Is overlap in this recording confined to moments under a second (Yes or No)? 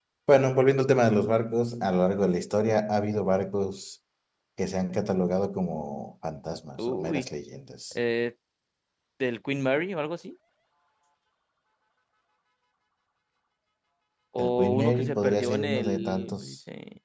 No